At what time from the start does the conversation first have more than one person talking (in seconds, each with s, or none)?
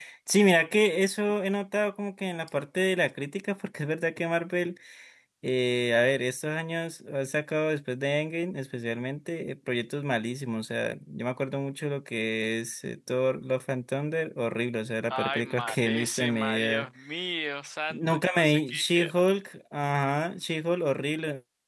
15.1 s